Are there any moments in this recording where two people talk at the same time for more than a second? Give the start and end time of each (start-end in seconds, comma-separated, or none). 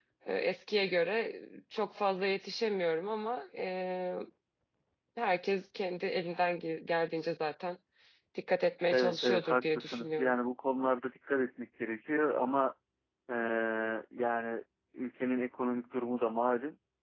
8.9-10.3